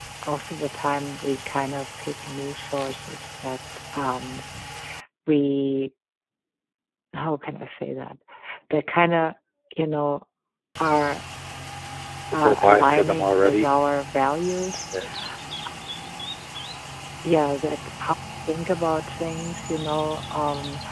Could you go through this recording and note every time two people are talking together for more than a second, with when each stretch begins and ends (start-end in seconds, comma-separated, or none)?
12.4-13.7